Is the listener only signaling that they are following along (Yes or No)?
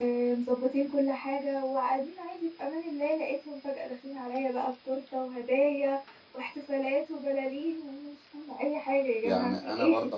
No